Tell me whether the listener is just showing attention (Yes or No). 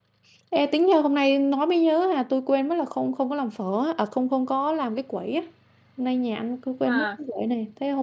Yes